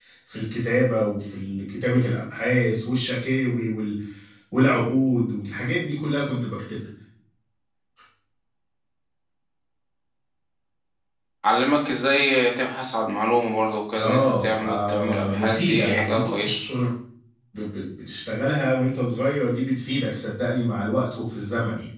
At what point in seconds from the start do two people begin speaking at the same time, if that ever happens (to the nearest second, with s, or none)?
14 s